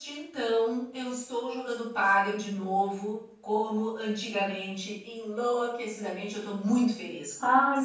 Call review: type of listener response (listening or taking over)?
taking over